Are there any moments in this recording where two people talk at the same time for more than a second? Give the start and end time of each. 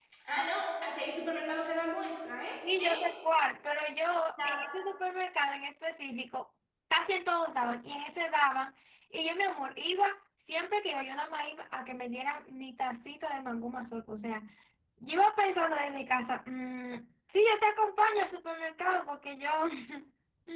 none

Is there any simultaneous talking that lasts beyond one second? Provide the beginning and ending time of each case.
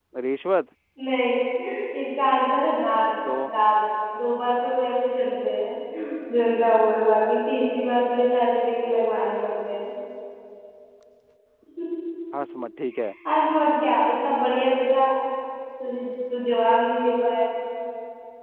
none

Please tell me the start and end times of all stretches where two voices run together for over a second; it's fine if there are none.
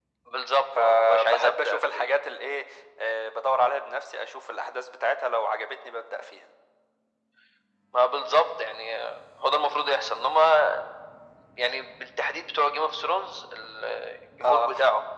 0.8-2.1

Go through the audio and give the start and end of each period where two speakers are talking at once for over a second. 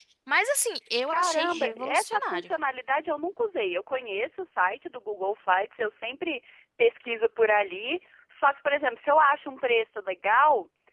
1.1-2.5

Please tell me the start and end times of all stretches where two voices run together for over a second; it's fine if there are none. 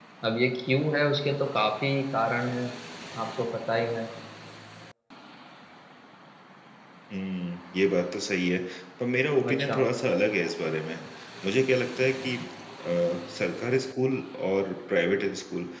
none

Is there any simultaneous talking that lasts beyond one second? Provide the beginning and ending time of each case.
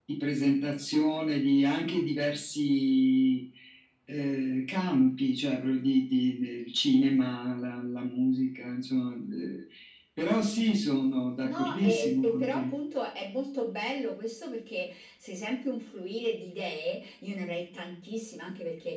11.4-12.7

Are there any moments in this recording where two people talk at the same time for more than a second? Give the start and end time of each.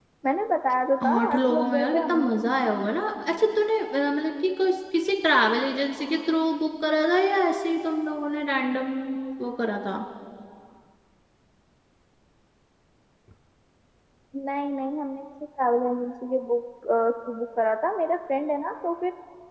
1.0-2.2

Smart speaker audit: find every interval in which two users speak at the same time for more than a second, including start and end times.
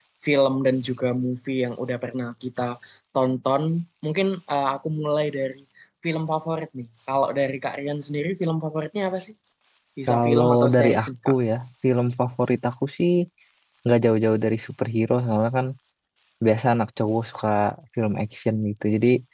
10.1-11.3

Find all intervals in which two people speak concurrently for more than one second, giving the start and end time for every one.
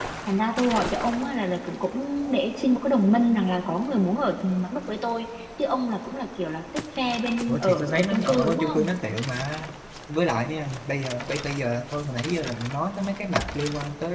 7.5-8.9

